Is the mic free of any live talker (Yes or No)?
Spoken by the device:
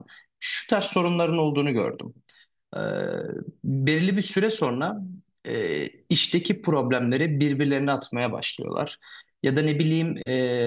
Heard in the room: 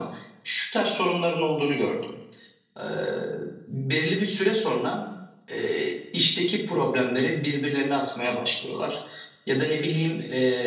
Yes